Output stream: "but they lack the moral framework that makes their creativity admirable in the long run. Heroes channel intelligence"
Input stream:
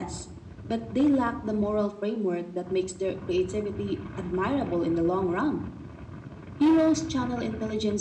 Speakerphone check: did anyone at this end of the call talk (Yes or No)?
No